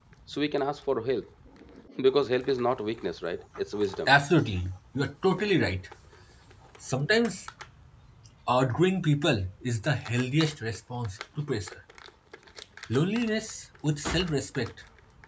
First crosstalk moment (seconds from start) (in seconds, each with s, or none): none